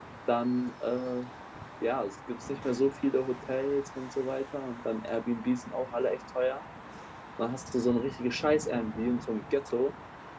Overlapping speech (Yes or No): No